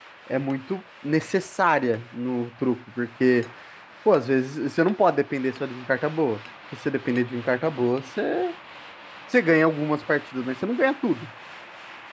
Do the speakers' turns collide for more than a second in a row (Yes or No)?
No